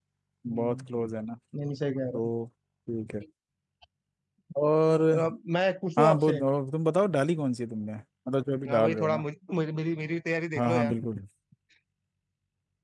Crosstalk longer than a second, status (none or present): none